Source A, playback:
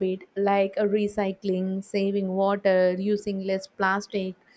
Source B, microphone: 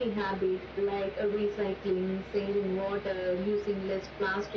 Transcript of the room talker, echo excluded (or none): none